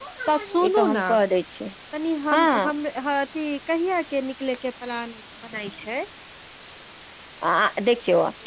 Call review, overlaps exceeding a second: none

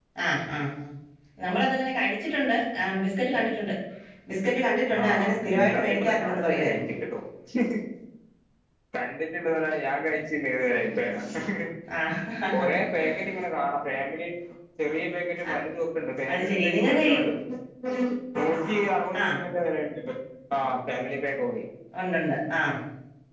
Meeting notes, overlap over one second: present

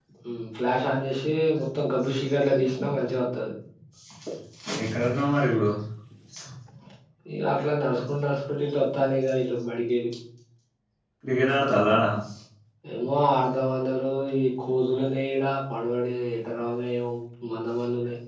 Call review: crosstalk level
none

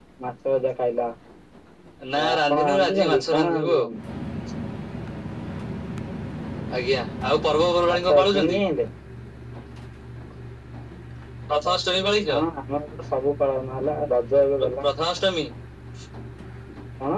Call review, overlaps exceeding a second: present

